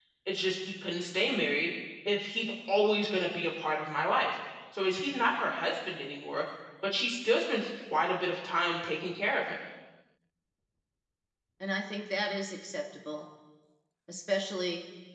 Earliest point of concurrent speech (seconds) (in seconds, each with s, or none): none